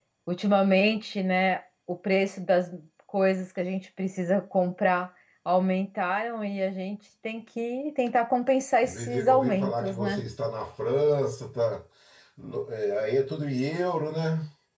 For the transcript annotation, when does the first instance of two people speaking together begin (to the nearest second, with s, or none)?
9 s